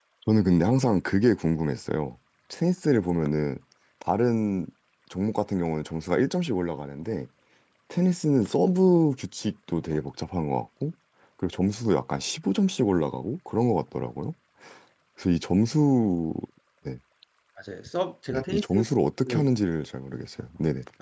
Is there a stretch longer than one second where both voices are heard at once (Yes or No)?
No